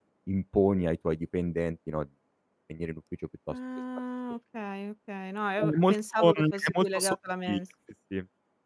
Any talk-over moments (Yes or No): Yes